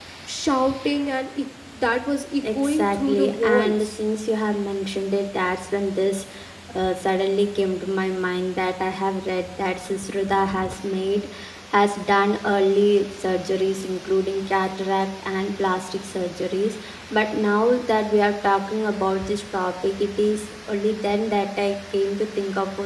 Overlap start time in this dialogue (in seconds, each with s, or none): 2.4 s